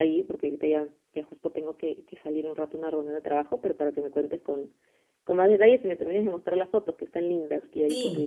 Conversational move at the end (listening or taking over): taking over